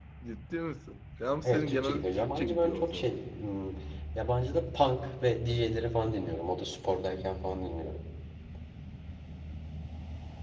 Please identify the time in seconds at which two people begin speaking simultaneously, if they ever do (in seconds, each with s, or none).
1.4 s